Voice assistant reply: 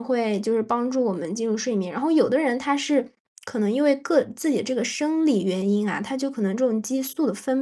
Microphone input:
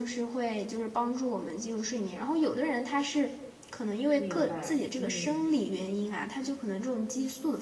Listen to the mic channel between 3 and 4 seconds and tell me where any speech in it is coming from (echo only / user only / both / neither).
echo only